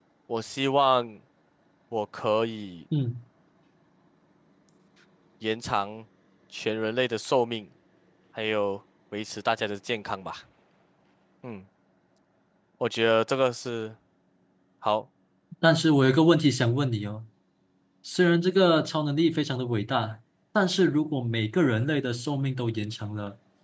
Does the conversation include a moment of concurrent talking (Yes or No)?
No